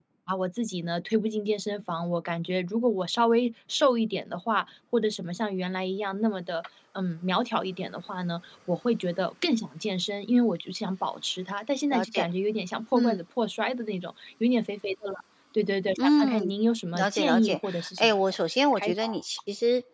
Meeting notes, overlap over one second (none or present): present